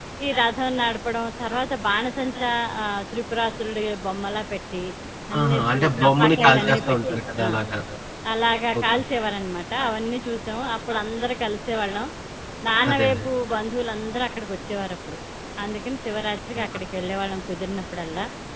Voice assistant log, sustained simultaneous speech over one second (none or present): present